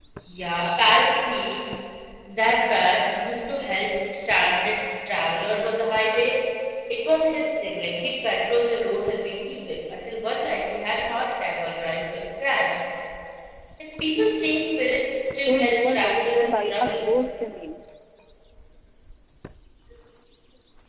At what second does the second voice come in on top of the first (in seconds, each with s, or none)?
15.3 s